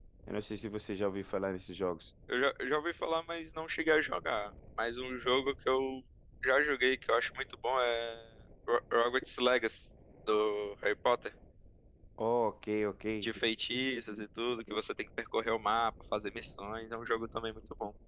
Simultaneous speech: No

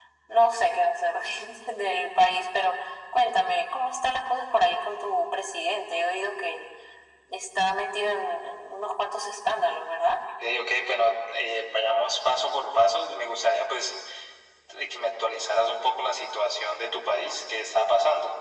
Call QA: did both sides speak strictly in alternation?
Yes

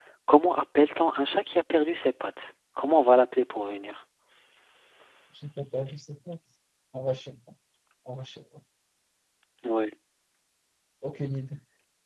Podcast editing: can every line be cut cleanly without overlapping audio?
Yes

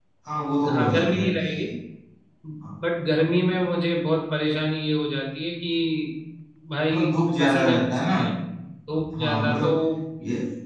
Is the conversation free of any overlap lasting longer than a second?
No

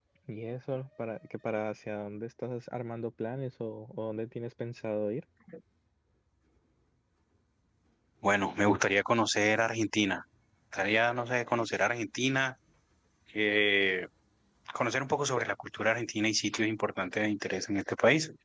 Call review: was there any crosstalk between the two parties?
No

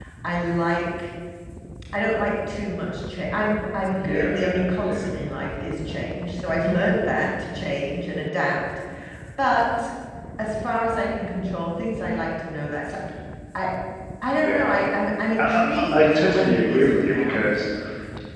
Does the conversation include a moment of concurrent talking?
Yes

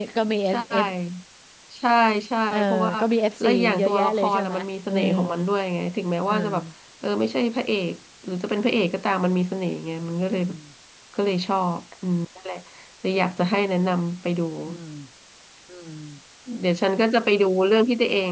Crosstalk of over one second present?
Yes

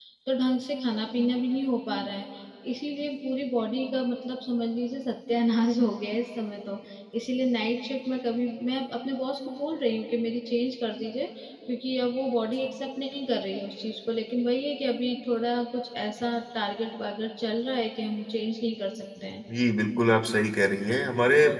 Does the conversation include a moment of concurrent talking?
No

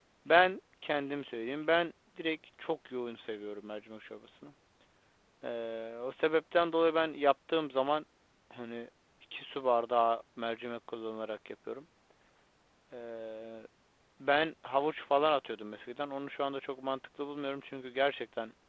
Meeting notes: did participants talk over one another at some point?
No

